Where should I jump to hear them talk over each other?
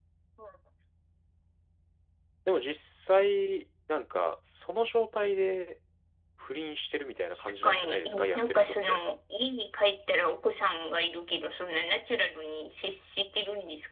7.6 s

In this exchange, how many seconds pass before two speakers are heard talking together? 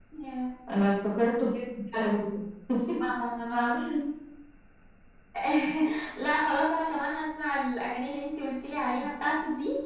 none

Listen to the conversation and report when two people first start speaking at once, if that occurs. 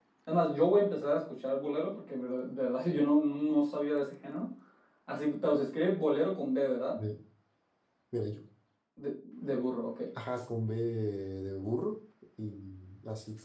none

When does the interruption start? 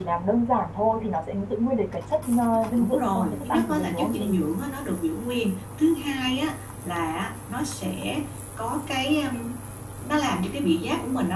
2.8 s

